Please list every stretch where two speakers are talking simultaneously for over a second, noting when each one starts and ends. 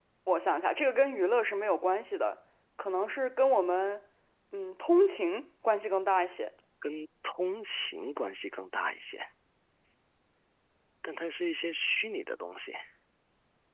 none

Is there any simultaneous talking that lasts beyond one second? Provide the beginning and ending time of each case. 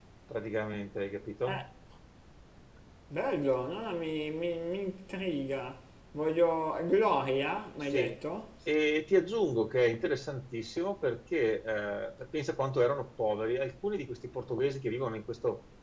none

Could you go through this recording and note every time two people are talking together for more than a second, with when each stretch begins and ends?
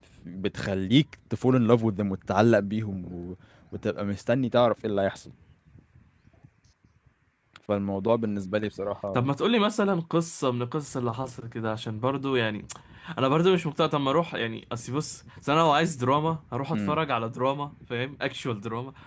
none

